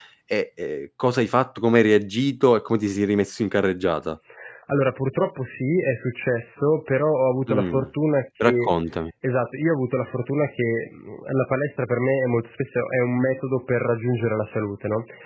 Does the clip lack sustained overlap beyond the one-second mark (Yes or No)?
Yes